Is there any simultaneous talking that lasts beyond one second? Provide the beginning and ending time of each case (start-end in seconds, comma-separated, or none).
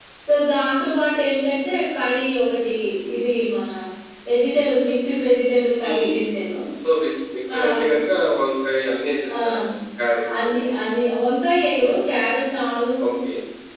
none